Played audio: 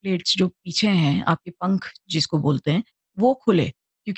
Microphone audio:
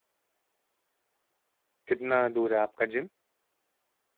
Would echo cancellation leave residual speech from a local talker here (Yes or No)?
Yes